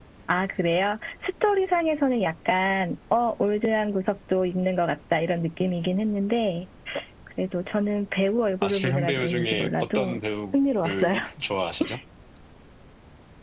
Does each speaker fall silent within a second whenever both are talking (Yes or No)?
No